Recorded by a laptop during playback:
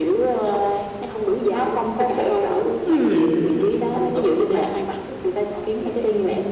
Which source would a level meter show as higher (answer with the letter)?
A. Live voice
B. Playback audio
A